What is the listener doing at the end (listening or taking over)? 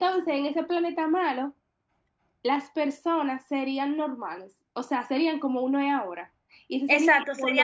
taking over